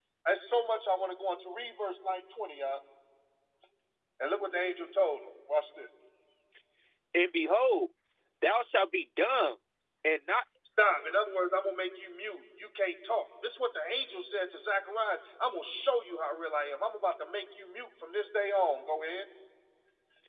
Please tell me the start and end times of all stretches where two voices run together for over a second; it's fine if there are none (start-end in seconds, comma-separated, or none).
none